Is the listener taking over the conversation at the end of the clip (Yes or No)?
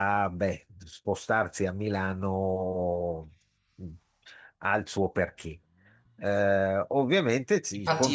Yes